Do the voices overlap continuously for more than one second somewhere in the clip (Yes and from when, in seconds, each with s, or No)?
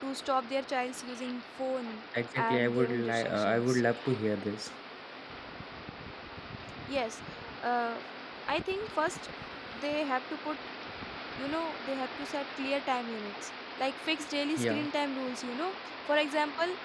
Yes, from 2.4 s